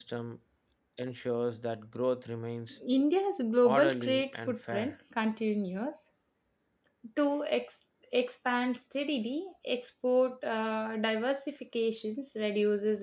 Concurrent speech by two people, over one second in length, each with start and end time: 3.6-5.0

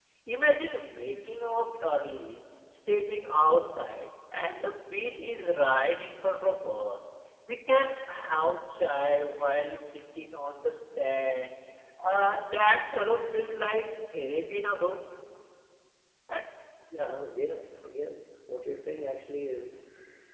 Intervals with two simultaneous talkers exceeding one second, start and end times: none

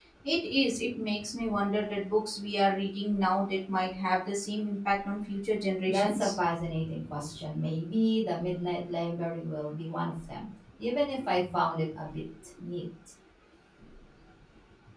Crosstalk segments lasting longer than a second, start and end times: none

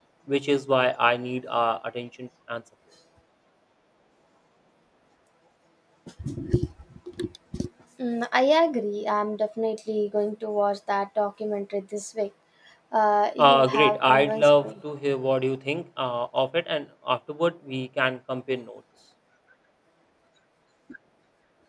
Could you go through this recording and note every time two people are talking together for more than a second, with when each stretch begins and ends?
13.4-14.7

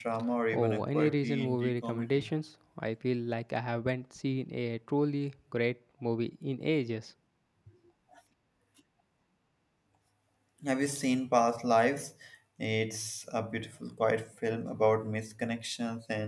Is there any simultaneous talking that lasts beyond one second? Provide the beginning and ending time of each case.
0.5-2.3

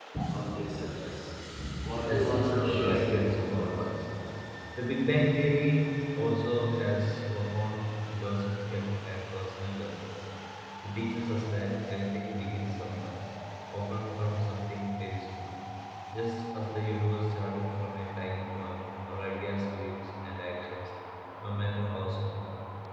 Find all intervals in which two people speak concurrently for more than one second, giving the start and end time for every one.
2.1-4.0

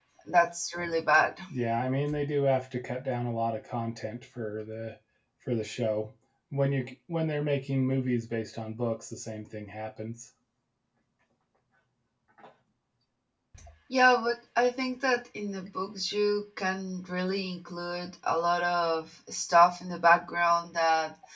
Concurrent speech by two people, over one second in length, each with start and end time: none

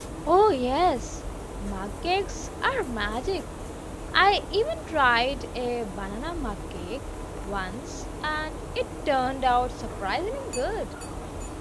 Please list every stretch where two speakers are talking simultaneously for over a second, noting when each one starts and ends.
none

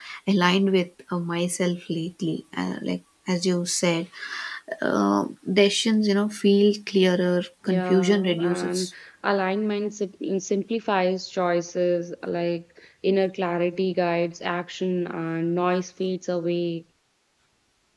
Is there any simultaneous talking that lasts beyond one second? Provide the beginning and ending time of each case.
7.7-8.9

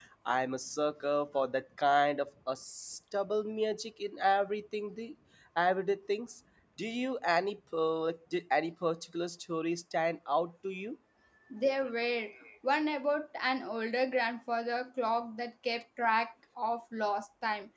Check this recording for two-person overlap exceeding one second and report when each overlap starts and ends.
none

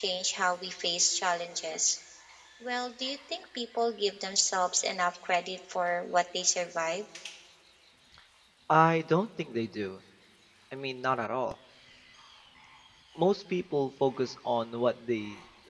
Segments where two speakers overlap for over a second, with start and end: none

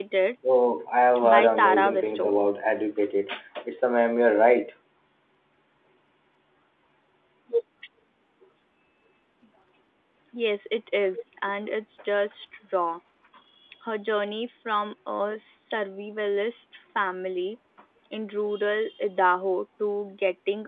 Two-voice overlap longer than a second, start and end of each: 1.2-2.5

